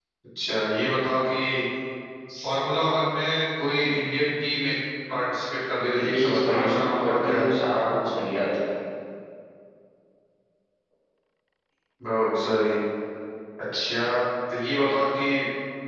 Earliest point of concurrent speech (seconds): 6.1 s

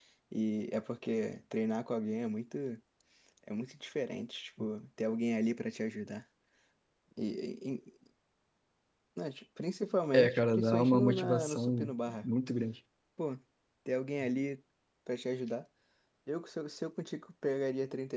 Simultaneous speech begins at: 10.1 s

